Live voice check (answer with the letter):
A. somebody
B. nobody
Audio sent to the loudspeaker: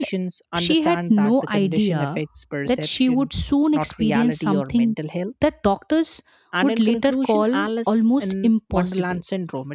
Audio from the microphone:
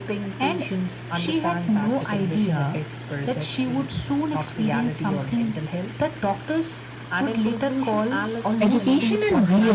A